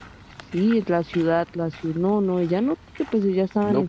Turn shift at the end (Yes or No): Yes